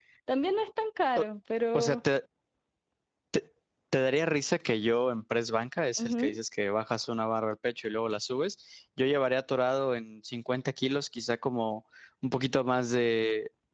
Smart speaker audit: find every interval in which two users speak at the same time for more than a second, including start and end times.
none

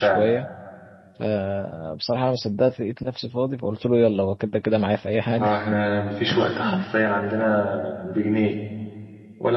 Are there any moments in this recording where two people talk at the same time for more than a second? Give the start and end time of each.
none

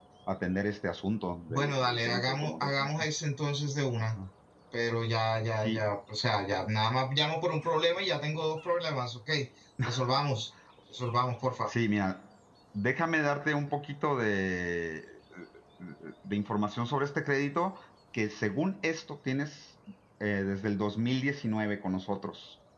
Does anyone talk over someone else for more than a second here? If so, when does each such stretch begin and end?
1.5-2.7

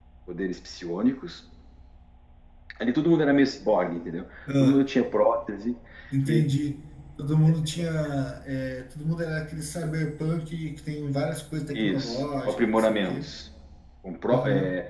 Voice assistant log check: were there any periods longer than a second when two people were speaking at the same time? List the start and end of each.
11.7-13.3

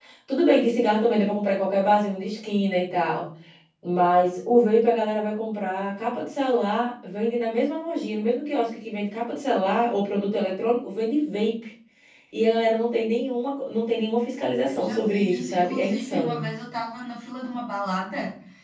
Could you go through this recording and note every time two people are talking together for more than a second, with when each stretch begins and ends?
14.7-16.4

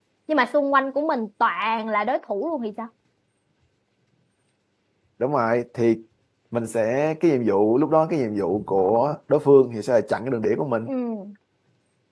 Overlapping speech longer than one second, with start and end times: none

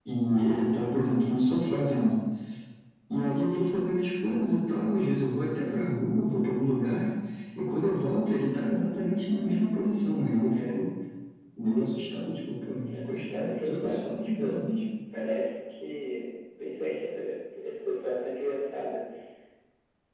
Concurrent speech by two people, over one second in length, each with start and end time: 12.7-14.6

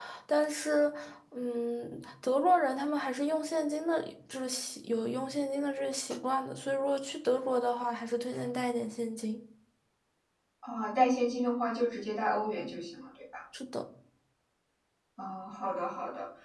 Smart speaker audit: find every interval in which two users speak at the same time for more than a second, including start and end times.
none

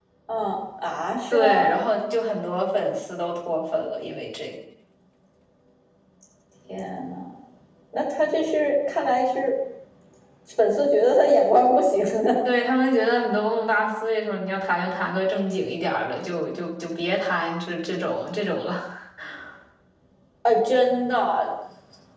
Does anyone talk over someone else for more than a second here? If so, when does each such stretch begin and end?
none

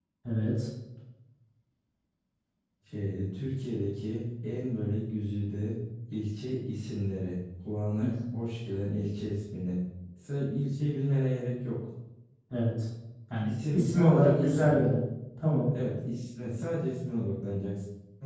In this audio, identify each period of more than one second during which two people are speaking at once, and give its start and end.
13.4-14.8

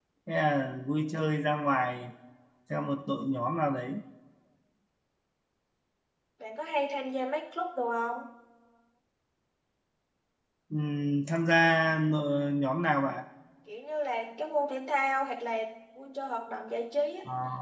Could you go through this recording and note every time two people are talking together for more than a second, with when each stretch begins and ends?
none

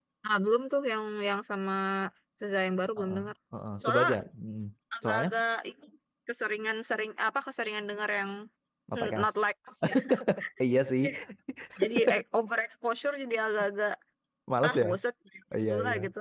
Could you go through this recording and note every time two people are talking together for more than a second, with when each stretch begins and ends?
none

